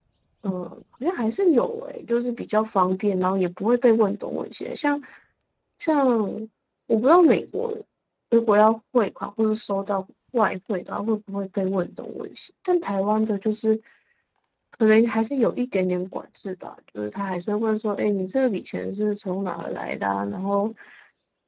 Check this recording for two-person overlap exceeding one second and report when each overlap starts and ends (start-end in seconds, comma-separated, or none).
none